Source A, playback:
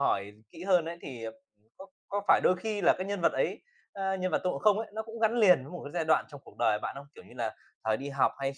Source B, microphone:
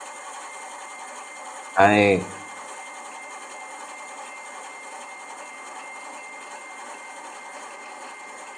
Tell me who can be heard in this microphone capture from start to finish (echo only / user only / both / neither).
user only